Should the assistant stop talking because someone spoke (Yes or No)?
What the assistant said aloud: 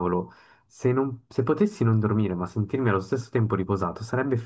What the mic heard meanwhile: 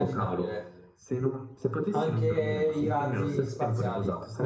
Yes